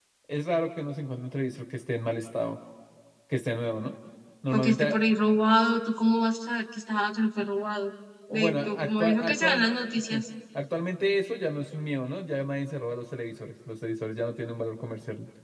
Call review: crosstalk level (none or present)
present